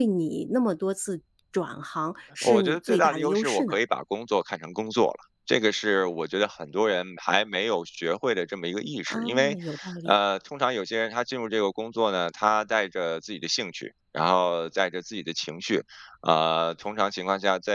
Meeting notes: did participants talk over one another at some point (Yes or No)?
Yes